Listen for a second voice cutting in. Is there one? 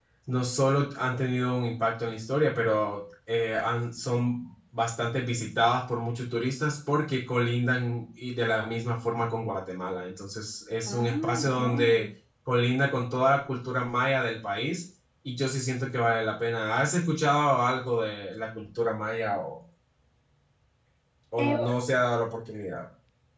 Yes, from 10.8 s

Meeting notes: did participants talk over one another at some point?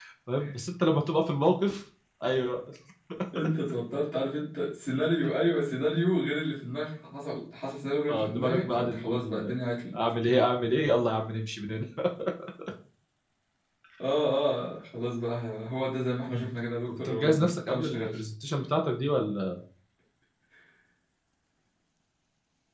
Yes, from 8.1 s

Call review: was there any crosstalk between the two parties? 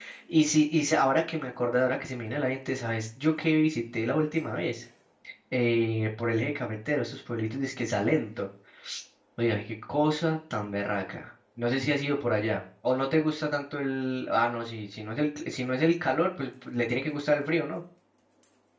No

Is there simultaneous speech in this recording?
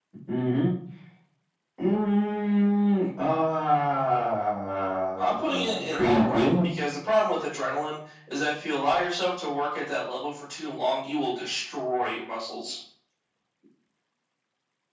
Yes, from 5.2 s

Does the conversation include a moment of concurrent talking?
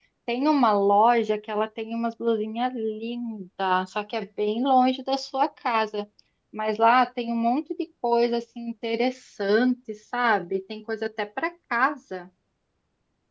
No

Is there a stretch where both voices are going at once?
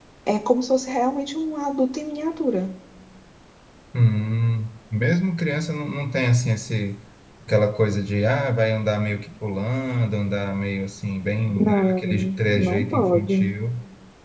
Yes, from 11.6 s

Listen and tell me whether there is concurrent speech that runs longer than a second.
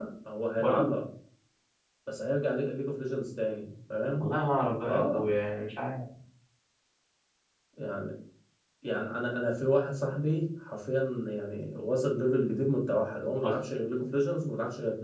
No

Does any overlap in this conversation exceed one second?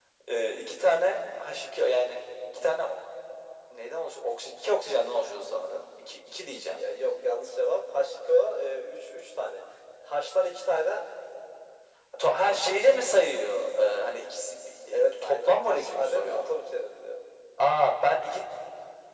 Yes, from 14.9 s

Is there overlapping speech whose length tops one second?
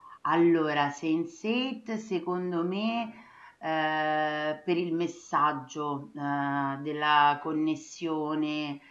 No

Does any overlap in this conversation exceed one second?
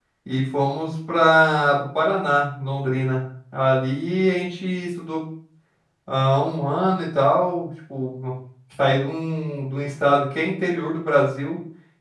No

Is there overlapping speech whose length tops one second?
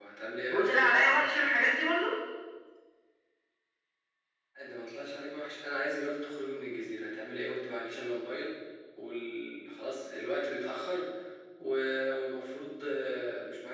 No

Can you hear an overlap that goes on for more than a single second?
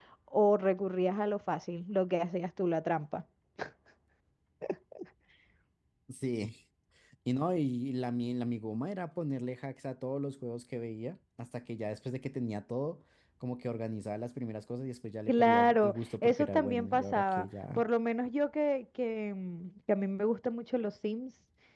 Yes, from 15.3 s

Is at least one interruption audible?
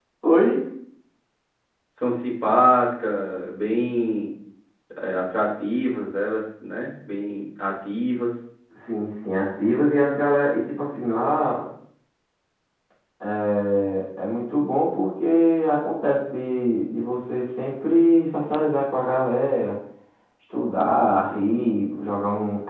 No

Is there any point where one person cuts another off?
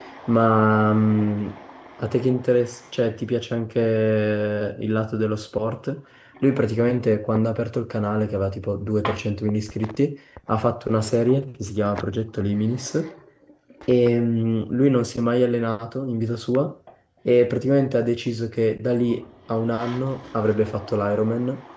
No

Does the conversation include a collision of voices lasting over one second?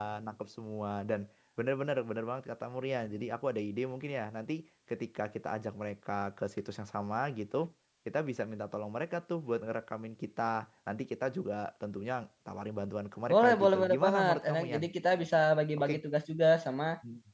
Yes, from 13.3 s

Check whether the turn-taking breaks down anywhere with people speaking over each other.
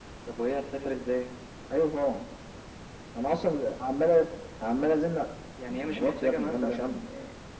Yes, from 5.7 s

